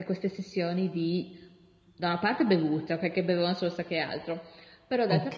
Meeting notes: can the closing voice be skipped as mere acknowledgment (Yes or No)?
Yes